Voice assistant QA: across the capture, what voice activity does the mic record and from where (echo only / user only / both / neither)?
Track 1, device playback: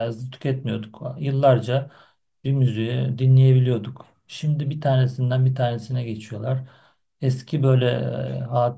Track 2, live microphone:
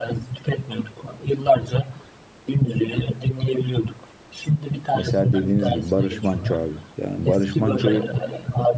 both